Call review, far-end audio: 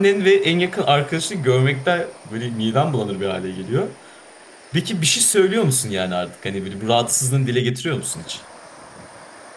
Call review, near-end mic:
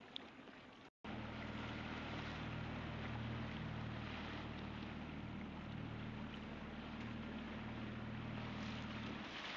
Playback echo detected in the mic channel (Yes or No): No